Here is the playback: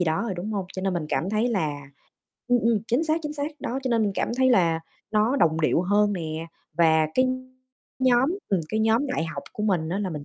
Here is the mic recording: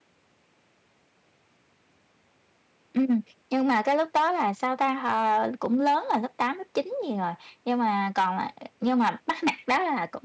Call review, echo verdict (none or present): none